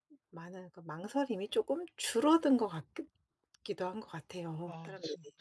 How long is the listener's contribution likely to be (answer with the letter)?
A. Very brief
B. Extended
B